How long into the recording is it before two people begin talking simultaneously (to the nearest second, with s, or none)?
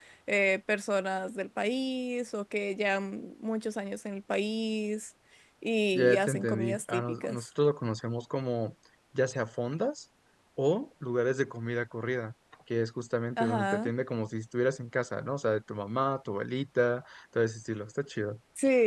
6 s